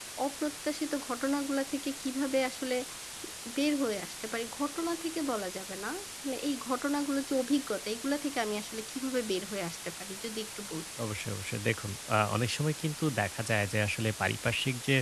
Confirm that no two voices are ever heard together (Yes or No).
Yes